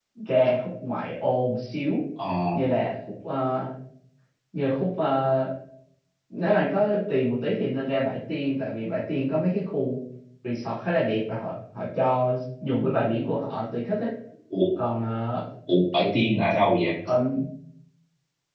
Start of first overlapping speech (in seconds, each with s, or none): none